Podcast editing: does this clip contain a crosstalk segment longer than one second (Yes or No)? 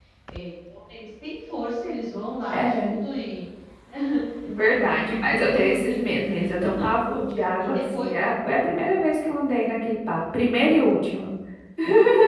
Yes